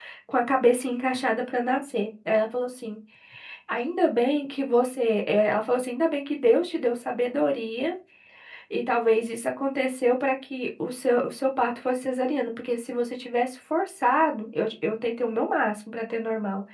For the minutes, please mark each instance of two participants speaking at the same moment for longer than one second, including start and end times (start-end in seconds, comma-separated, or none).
none